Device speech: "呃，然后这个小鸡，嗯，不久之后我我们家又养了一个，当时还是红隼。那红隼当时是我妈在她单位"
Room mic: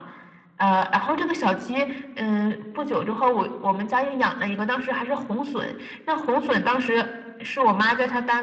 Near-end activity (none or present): none